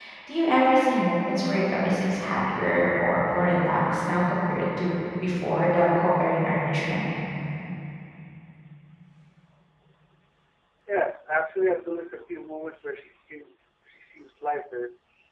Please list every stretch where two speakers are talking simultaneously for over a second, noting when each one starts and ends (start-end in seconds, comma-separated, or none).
none